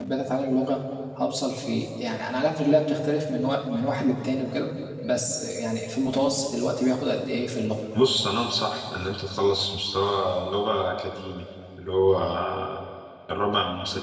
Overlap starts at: none

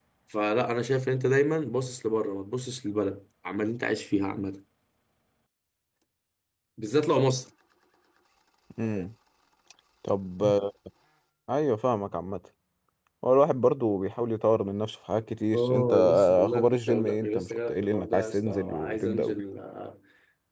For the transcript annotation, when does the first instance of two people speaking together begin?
15.5 s

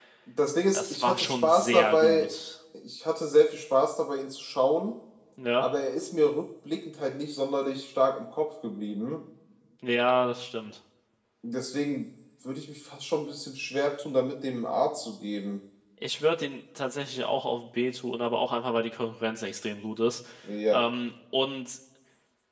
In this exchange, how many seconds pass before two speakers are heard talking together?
0.7 s

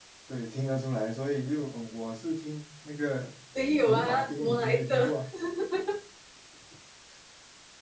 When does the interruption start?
3.8 s

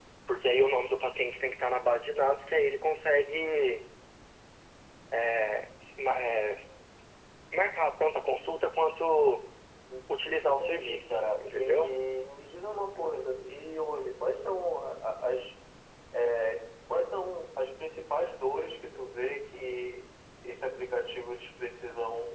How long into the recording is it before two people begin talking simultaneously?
10.4 s

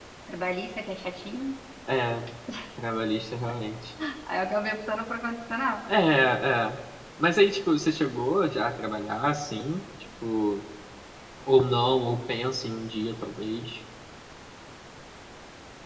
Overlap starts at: none

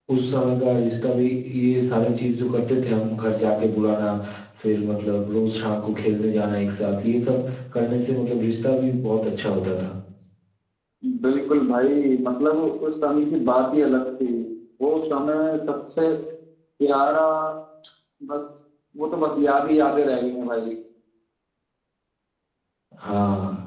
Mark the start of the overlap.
none

